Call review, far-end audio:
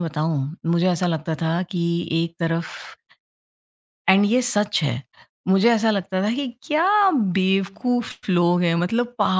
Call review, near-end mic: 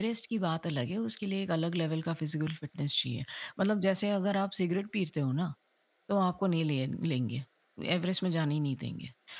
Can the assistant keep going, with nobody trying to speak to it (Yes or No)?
No